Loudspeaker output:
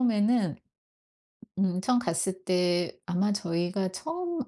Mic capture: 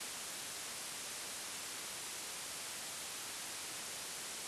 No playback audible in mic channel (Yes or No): Yes